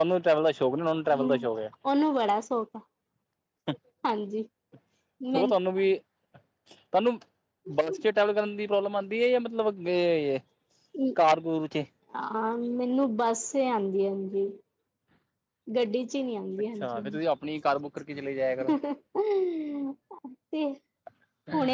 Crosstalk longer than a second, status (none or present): none